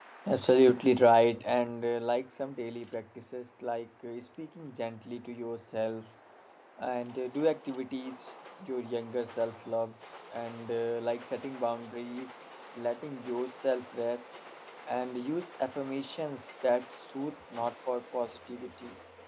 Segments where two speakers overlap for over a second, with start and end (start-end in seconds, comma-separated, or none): none